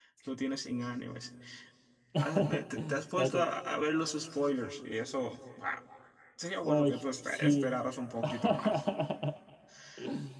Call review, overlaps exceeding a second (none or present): present